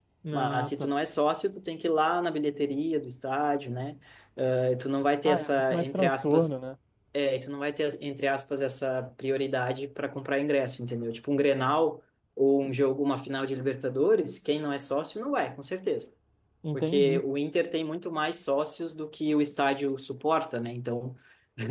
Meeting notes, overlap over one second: present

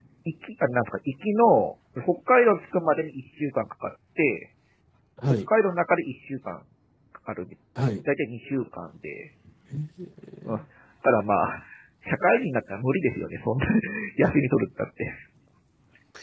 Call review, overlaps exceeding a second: none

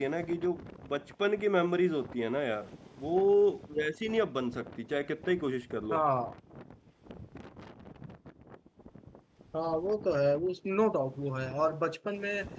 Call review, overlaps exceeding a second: none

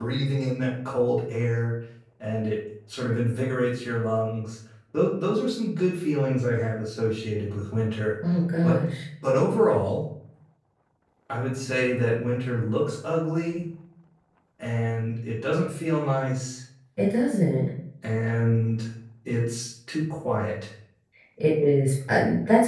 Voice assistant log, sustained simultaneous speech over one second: none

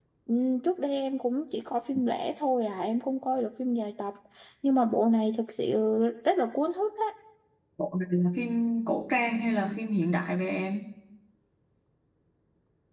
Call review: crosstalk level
none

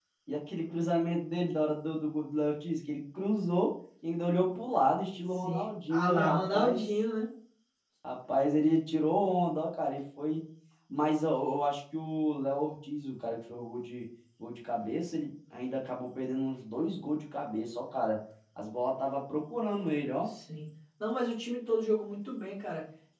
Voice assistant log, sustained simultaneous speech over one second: present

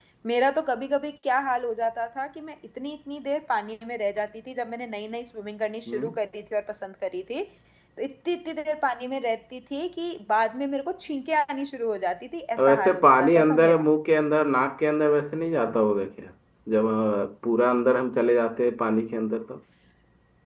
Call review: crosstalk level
present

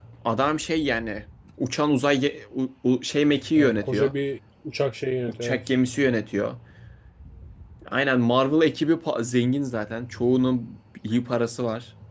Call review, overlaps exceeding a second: none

